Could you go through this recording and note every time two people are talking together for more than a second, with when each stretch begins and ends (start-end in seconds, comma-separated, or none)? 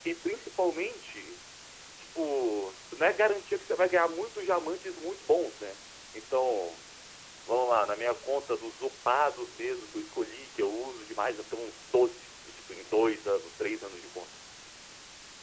none